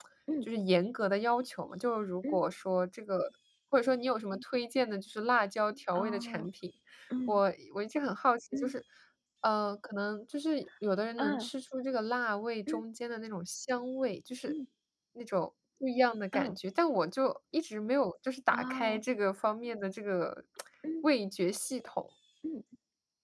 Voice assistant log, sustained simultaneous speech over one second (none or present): none